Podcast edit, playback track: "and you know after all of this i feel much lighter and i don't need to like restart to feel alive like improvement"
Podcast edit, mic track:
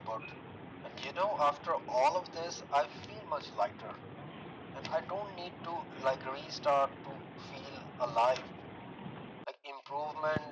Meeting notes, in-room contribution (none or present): none